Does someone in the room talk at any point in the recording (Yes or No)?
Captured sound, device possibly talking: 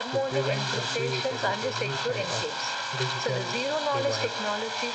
Yes